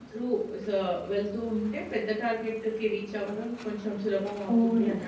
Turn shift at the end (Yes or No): Yes